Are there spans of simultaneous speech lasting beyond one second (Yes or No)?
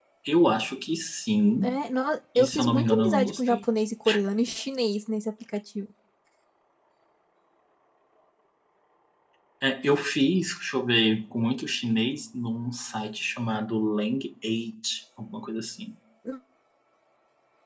Yes